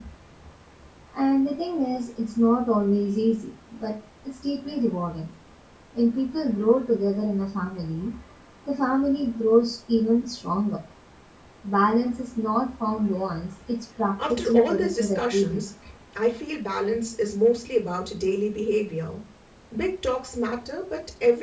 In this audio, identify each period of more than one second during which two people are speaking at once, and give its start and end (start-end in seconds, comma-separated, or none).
14.3-15.6